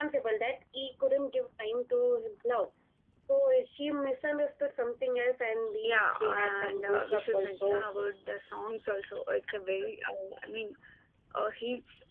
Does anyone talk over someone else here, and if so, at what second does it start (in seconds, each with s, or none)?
5.8 s